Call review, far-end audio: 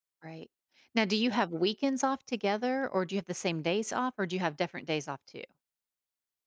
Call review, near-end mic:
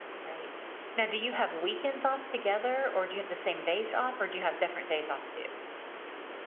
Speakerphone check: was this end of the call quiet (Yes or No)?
Yes